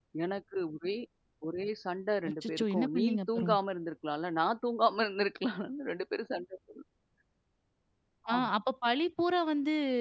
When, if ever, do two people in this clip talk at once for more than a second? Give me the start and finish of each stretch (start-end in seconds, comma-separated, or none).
2.3-3.6